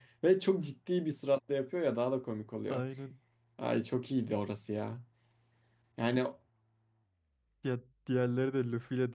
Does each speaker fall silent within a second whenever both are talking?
Yes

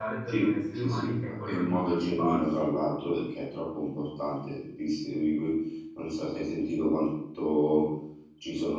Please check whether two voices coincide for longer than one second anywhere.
Yes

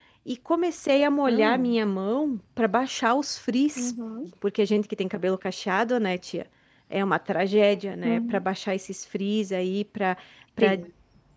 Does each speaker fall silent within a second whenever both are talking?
Yes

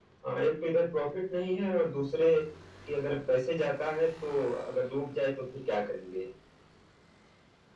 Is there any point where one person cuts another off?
No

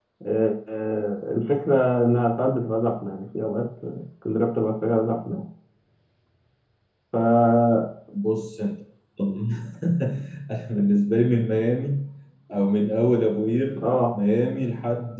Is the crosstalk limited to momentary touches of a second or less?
Yes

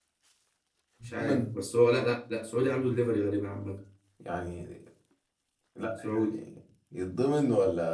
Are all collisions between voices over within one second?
Yes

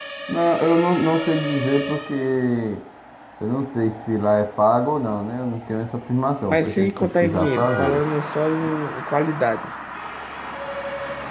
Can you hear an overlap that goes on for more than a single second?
Yes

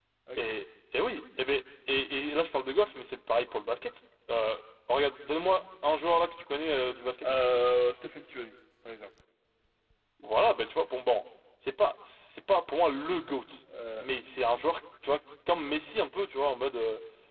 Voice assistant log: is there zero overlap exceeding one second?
Yes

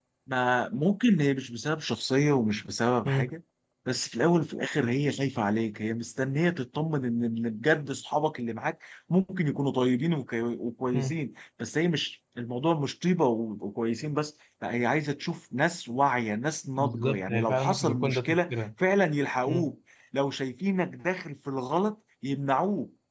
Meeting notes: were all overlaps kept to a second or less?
No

